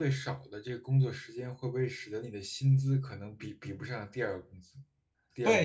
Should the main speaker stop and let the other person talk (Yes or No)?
Yes